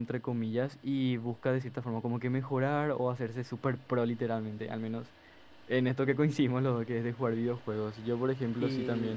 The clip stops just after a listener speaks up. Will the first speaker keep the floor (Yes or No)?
Yes